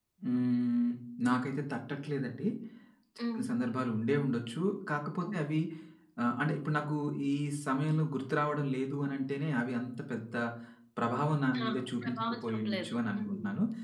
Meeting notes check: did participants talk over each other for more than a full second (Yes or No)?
Yes